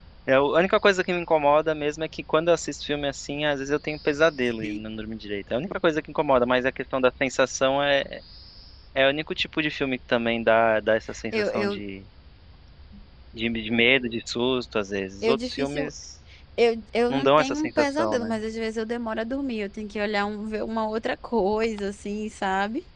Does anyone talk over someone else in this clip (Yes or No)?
Yes